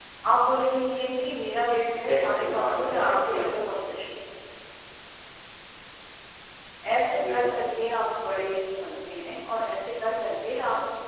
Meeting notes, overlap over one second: present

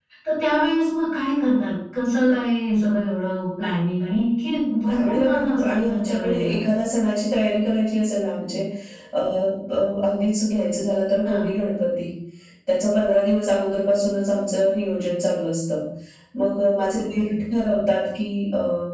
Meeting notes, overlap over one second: present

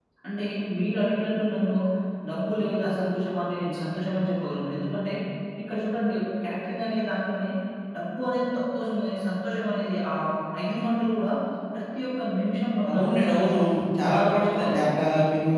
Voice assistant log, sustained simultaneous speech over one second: present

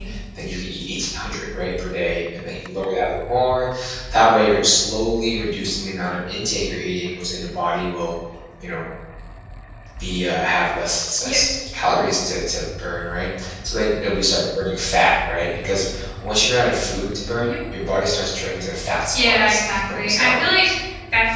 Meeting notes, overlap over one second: present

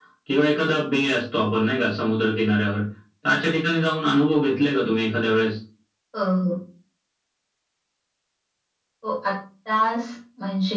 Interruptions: none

